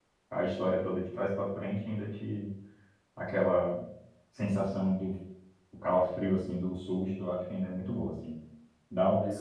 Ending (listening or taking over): listening